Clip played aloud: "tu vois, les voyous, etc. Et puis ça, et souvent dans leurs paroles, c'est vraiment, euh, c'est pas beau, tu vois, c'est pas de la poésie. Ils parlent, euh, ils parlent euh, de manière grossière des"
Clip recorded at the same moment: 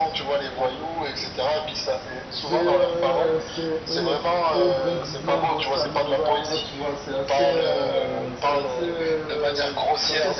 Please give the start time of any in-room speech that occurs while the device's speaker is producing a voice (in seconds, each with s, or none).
2.3 s